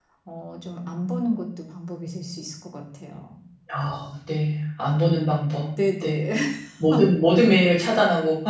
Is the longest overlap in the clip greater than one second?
No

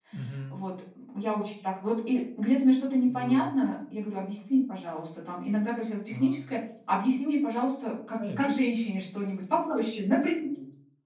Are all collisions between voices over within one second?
Yes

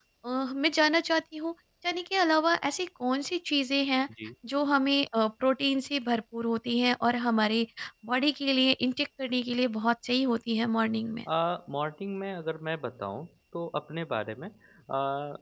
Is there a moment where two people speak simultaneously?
No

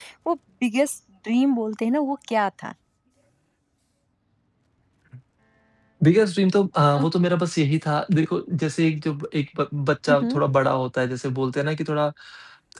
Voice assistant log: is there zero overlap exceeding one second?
Yes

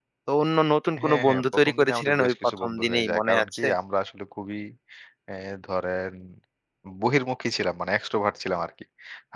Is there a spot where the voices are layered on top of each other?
Yes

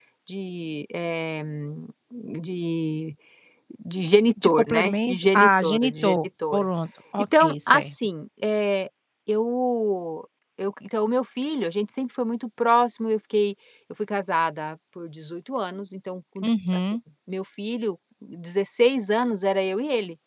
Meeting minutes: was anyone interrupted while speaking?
Yes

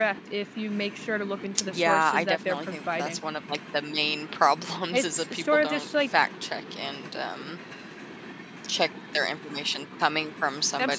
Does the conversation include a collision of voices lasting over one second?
Yes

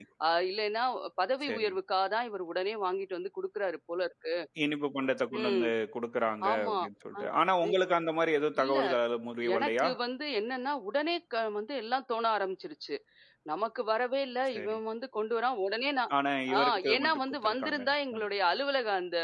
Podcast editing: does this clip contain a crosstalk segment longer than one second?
Yes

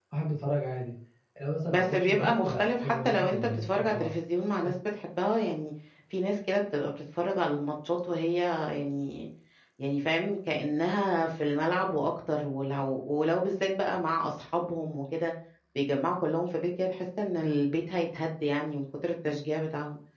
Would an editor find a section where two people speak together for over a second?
Yes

